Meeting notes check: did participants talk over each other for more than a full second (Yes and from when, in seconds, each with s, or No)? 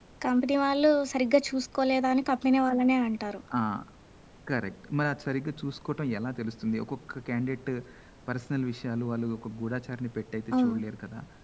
No